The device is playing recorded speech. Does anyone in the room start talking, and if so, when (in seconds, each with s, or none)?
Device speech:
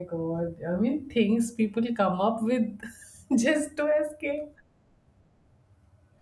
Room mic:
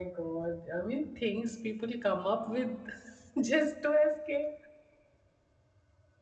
none